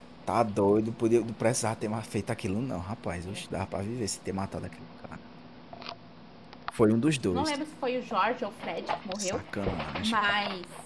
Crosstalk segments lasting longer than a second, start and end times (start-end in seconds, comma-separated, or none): none